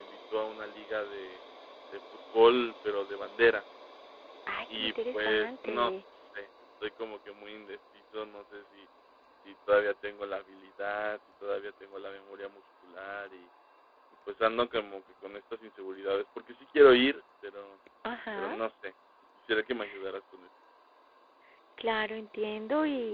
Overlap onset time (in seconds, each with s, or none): 4.8 s